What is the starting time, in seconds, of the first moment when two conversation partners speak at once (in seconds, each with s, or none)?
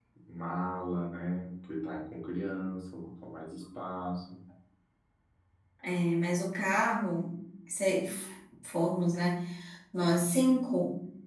none